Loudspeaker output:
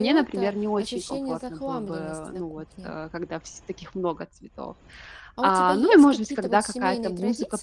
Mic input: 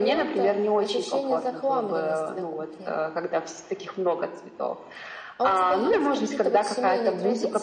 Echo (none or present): present